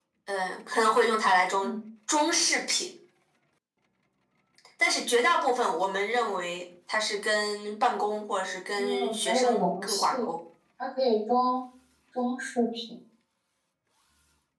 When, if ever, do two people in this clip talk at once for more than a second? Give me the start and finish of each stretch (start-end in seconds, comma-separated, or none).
8.8-10.2